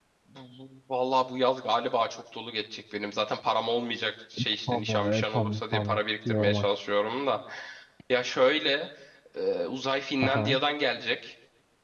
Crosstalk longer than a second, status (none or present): present